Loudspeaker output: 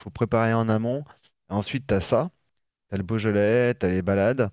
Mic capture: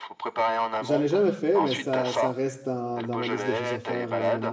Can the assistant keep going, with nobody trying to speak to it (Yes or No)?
No